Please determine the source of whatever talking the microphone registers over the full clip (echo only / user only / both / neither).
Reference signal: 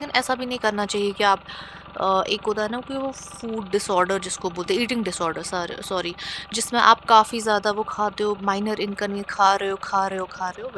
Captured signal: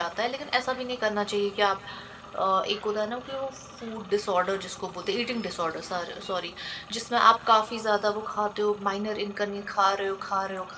echo only